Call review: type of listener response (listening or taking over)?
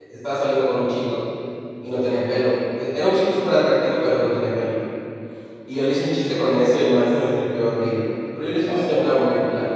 listening